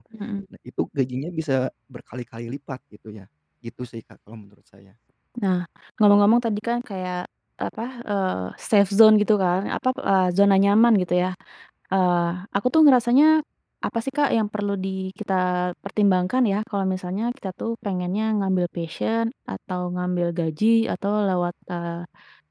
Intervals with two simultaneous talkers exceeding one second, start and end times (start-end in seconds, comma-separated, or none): none